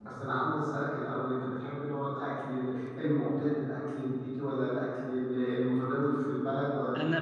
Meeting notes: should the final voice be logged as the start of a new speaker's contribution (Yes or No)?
Yes